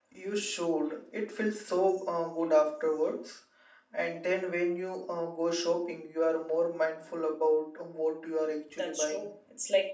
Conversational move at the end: taking over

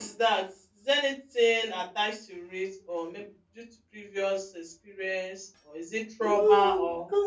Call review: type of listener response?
taking over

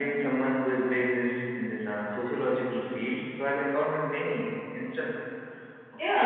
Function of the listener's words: taking over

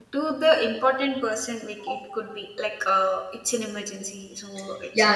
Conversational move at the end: taking over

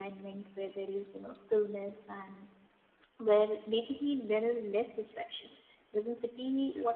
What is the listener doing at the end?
listening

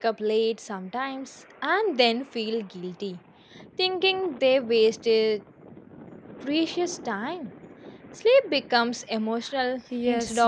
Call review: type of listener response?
taking over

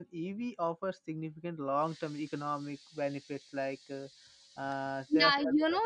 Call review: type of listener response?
taking over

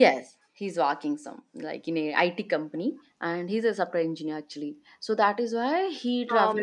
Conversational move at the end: listening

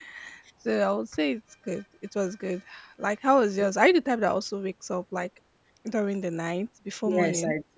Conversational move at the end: taking over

